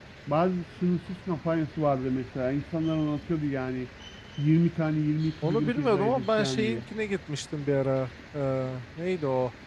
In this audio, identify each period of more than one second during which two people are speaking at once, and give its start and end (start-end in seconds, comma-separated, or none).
5.4-6.8